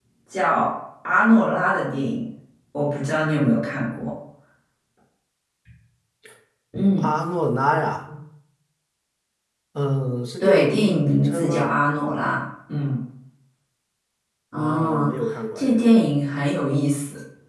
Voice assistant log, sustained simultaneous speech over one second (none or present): present